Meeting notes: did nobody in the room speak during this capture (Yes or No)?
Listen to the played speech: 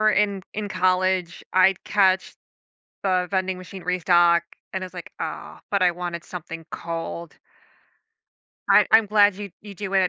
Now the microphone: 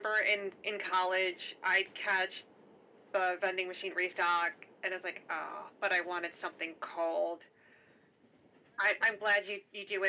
Yes